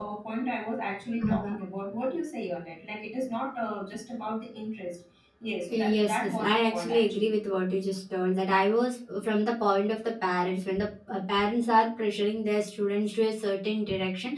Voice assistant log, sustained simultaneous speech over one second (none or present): present